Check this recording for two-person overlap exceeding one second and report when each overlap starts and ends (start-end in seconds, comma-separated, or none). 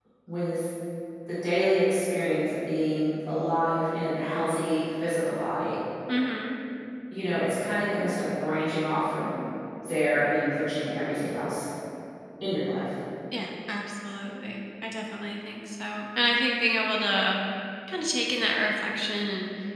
none